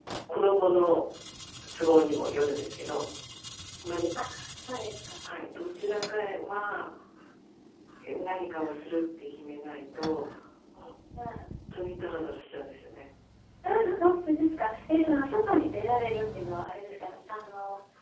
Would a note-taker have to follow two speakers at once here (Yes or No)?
No